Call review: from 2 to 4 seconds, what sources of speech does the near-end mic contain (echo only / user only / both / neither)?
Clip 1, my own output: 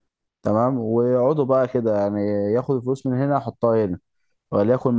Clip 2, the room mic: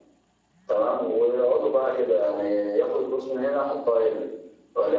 echo only